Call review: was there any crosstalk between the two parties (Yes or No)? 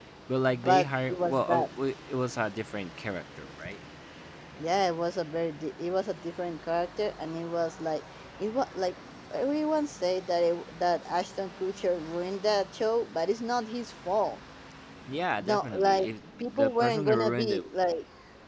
Yes